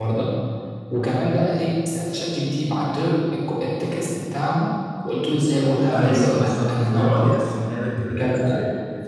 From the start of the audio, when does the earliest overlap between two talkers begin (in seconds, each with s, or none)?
5.9 s